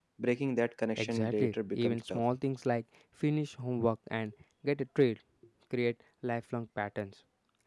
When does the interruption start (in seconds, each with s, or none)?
1.0 s